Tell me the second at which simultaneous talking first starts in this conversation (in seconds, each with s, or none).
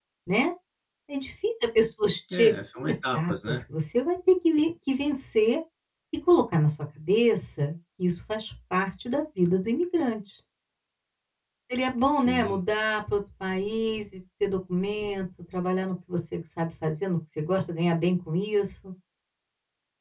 2.3 s